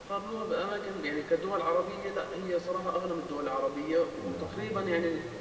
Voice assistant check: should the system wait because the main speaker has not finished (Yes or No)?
Yes